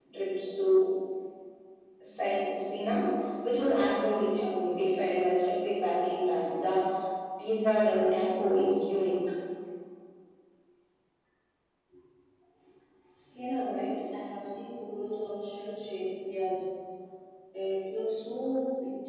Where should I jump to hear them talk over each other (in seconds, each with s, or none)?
none